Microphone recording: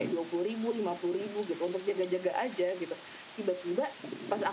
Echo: present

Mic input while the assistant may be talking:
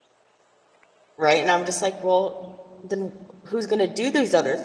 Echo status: none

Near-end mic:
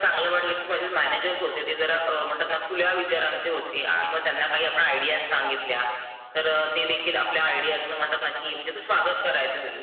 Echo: present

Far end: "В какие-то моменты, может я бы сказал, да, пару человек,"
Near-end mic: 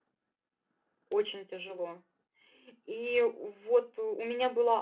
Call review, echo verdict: none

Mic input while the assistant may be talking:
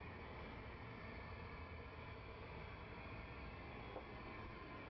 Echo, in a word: none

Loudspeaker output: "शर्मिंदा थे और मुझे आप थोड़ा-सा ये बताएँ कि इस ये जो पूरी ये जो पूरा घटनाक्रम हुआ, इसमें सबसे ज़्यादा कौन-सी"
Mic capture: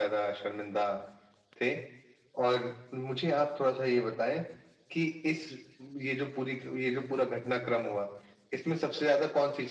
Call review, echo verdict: present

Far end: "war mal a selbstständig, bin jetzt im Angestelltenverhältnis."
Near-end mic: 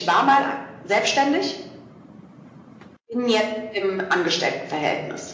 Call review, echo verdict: present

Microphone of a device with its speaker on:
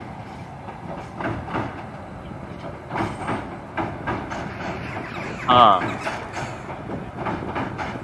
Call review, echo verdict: none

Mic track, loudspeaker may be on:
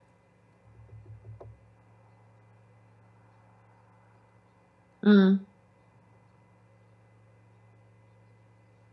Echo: none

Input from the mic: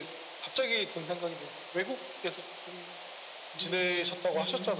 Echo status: present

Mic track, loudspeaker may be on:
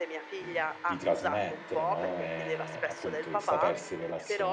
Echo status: present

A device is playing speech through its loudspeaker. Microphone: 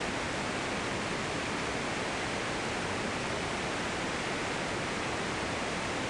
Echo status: none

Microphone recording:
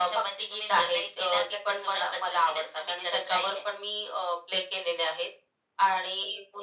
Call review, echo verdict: present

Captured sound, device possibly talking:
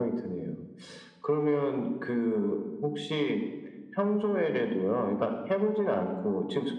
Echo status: present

